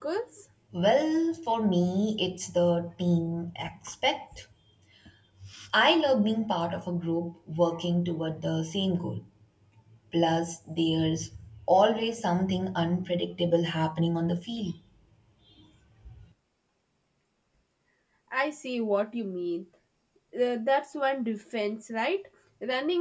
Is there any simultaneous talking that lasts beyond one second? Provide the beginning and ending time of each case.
none

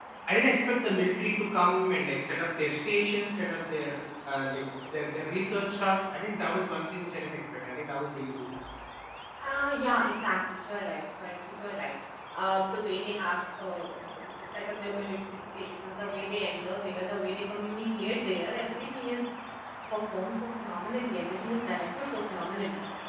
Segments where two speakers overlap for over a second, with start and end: none

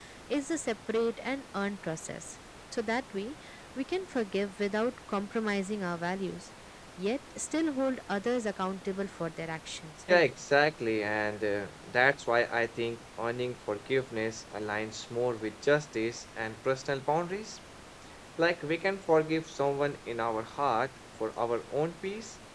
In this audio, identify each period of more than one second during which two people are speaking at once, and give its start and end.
none

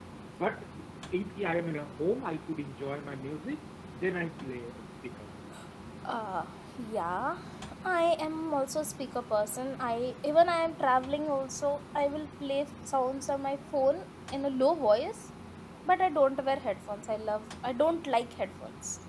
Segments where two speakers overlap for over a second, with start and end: none

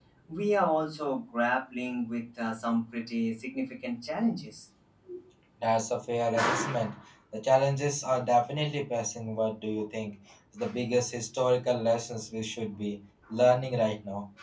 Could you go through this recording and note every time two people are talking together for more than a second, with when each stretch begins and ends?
none

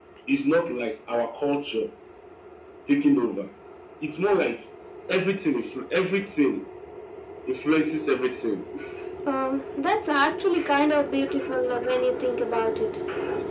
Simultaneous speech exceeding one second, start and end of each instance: none

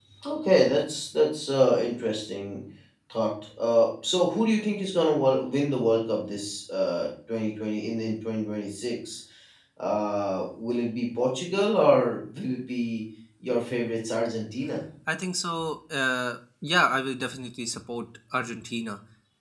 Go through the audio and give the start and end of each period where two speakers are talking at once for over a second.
none

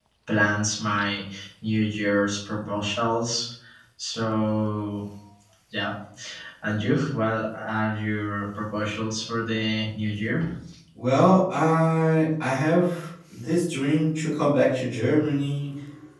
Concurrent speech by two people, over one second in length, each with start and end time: none

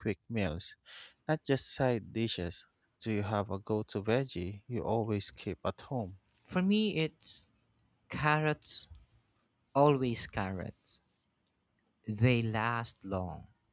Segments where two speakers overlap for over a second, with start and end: none

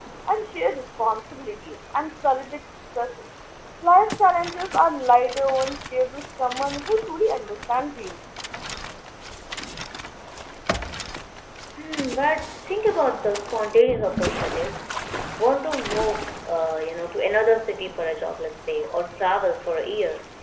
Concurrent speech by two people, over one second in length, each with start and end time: none

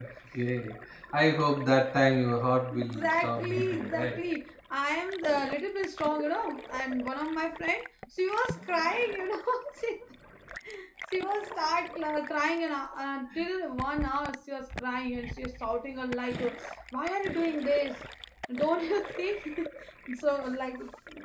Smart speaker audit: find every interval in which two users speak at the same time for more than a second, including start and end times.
2.7-4.2

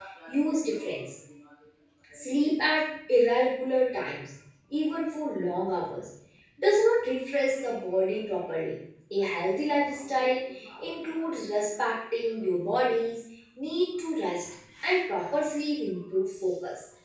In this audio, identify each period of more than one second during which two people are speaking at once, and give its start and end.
none

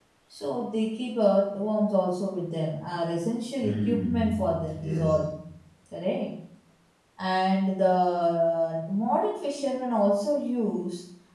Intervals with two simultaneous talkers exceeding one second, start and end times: 3.6-5.2

